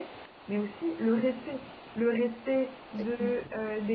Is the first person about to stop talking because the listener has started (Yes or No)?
No